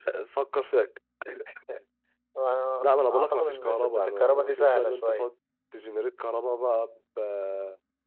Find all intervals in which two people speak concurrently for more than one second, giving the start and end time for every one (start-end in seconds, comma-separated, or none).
3.1-5.3